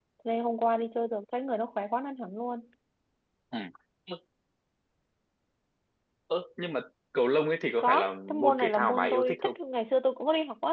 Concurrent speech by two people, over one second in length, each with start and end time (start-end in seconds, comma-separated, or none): 7.8-9.6